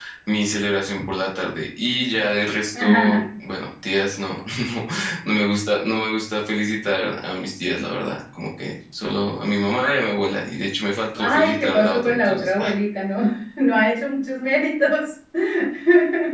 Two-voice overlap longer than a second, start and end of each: 11.2-12.7

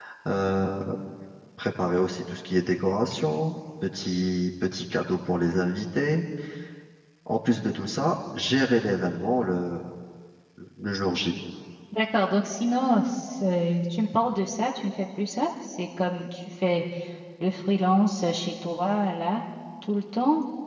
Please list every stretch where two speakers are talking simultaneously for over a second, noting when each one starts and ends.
none

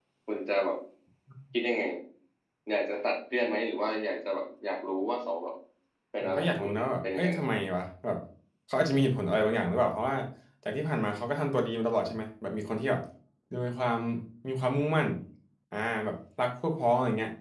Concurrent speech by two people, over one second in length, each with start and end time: 6.2-7.4

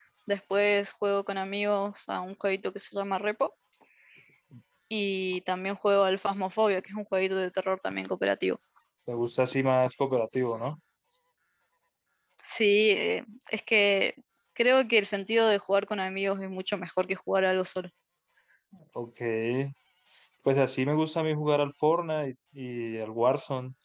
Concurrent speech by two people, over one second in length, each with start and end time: none

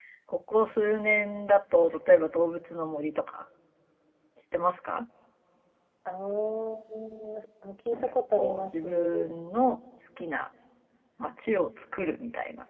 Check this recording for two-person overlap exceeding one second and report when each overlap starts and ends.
7.9-9.3

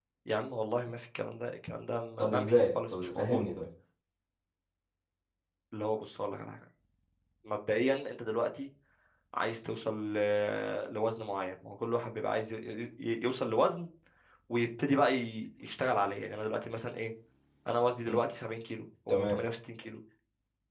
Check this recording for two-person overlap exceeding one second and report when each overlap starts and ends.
2.2-3.4

